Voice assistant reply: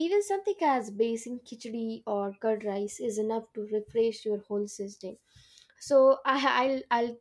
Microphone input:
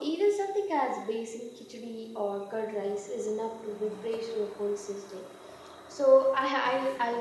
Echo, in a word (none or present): present